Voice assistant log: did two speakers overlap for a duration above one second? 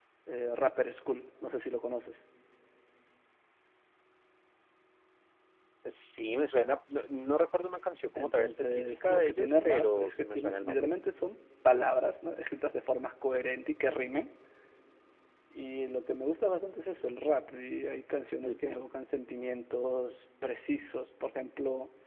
Yes, from 8.2 s

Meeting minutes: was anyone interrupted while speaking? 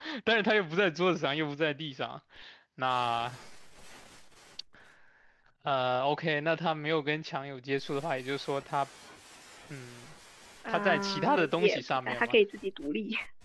Yes, from 10.7 s

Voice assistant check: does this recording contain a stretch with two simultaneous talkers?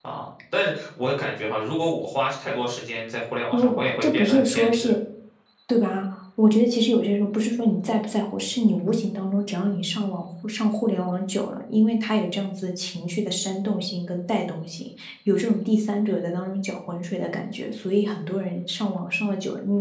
Yes, from 3.5 s

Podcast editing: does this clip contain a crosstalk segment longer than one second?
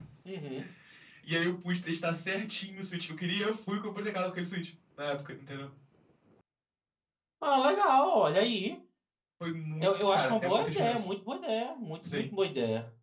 Yes, from 9.8 s

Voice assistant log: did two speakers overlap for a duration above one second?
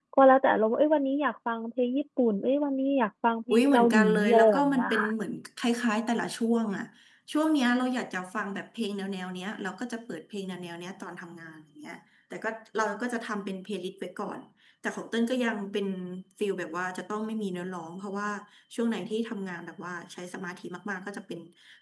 Yes, from 3.5 s

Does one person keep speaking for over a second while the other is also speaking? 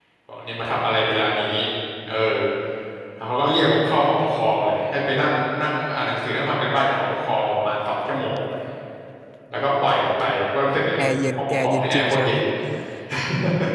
Yes, from 11.0 s

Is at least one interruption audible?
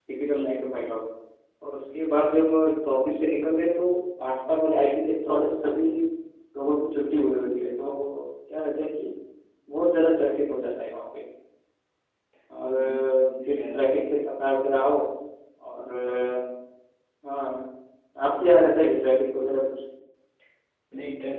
Yes, from 12.8 s

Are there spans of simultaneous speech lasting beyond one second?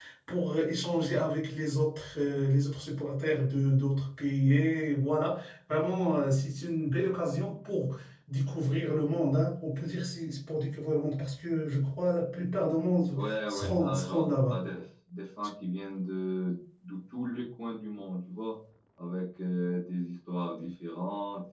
Yes, from 13.1 s

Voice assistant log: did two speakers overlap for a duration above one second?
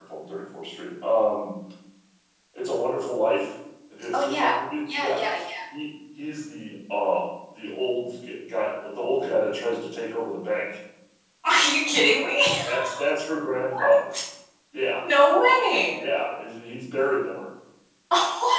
No

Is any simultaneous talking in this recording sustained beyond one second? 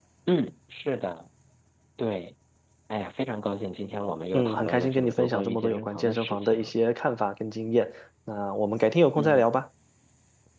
Yes, from 4.3 s

